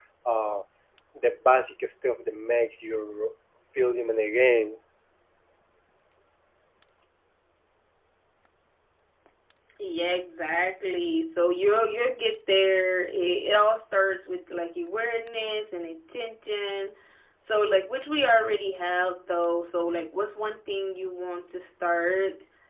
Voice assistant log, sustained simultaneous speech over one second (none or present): none